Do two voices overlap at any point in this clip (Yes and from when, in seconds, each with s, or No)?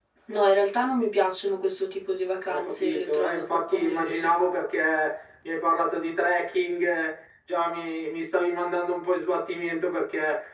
Yes, from 2.5 s